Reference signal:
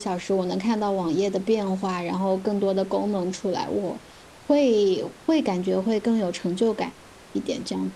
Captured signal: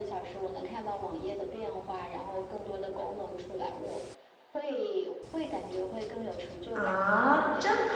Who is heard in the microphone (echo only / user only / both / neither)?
both